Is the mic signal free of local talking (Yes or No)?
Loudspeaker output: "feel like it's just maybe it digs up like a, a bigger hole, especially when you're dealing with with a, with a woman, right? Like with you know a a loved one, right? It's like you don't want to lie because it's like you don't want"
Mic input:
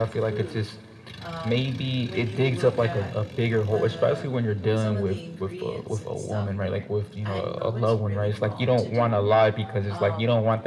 No